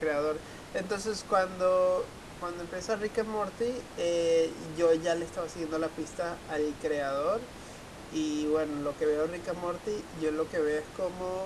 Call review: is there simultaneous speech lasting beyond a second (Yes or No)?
No